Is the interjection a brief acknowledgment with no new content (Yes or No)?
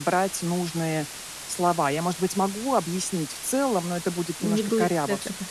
No